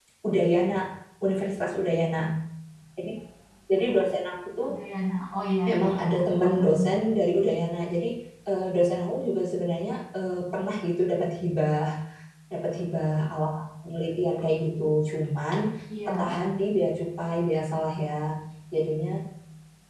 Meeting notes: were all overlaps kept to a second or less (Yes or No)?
No